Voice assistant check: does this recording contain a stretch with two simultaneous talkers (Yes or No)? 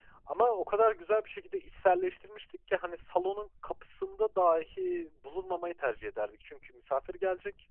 No